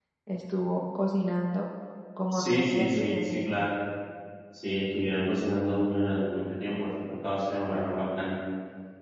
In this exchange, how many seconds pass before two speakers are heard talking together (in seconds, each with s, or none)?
2.3 s